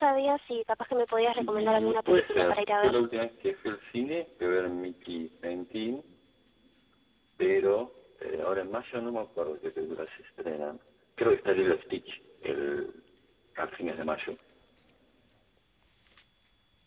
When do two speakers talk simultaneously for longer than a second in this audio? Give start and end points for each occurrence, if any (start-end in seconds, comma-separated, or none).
1.4-3.0